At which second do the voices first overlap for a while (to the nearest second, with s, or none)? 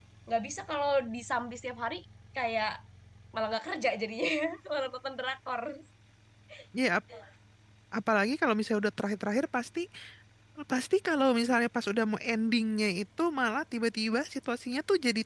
none